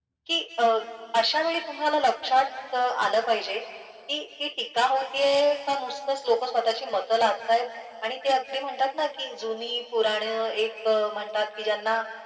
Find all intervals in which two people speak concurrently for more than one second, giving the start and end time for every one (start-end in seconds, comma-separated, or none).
none